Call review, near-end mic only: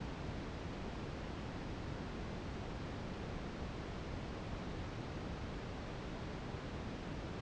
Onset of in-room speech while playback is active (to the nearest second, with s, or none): none